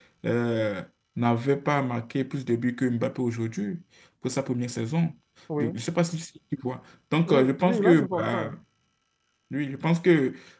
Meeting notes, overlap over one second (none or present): present